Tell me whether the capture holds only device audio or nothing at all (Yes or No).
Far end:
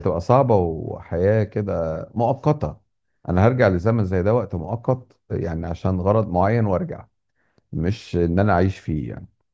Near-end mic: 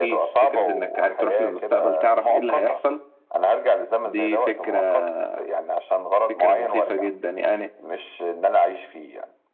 No